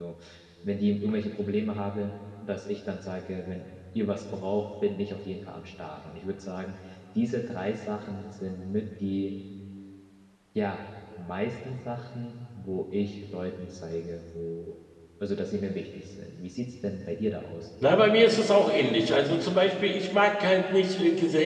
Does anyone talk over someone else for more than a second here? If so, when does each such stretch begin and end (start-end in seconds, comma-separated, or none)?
none